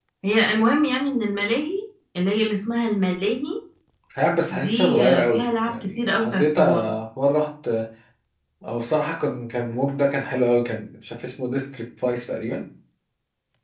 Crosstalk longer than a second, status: present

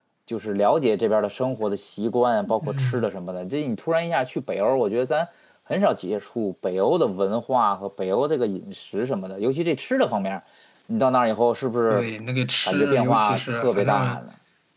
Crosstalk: present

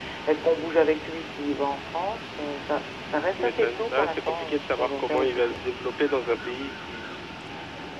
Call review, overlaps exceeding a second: present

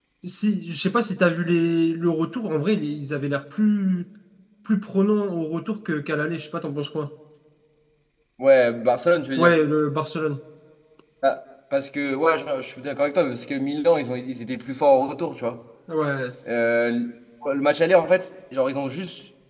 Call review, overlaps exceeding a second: none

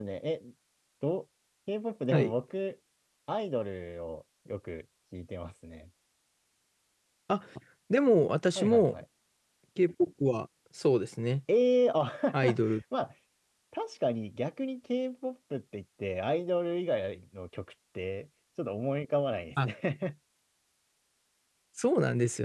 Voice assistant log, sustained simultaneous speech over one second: none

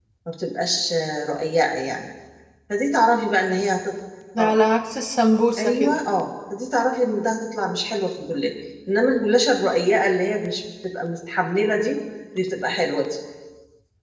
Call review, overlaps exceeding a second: none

